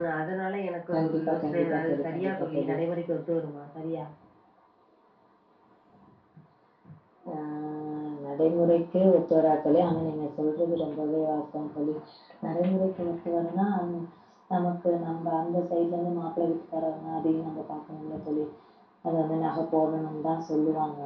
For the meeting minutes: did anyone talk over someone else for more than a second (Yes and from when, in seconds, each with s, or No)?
Yes, from 0.9 s